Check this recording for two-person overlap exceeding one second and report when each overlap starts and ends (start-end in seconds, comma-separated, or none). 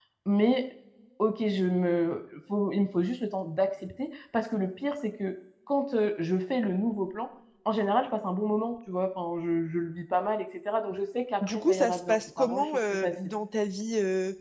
11.4-13.1